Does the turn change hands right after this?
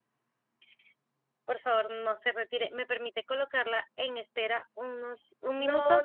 Yes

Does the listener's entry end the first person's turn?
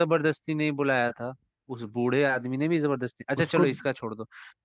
No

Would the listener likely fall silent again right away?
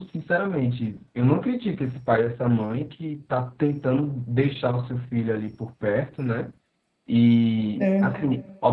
Yes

